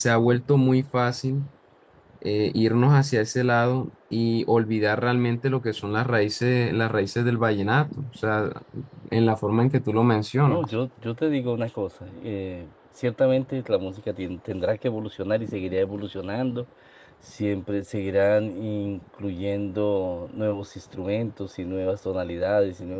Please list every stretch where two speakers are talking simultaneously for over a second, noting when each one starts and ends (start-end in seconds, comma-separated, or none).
none